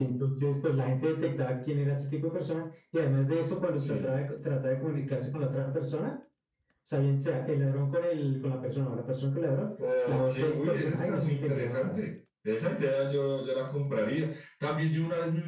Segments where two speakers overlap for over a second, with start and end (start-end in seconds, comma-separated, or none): 10.1-12.0